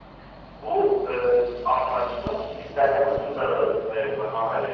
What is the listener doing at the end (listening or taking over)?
listening